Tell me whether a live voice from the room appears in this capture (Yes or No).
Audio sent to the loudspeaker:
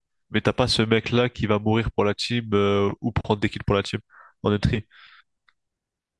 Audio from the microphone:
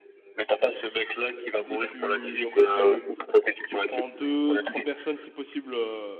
Yes